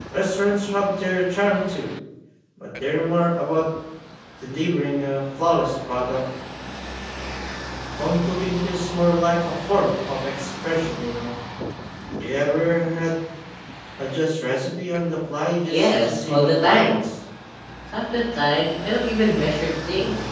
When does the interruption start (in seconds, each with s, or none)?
15.7 s